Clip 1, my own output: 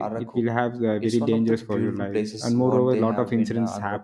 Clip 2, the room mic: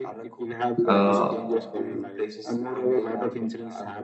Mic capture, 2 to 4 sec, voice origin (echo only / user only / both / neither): echo only